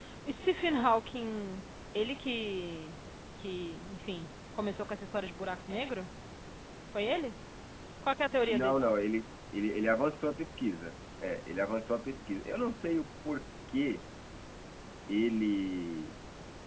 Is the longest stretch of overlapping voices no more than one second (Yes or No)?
Yes